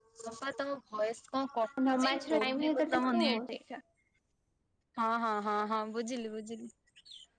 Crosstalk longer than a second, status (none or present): present